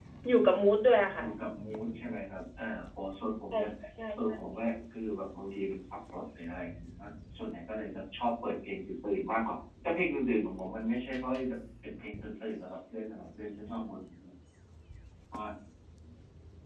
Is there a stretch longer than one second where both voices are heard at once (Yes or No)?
No